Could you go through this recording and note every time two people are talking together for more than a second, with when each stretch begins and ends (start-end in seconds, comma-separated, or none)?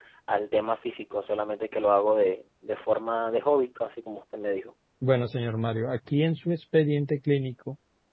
none